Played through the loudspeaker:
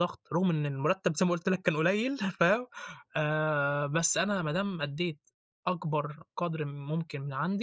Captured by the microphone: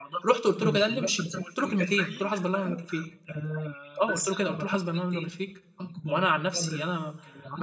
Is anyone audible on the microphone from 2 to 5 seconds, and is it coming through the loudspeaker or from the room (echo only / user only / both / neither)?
both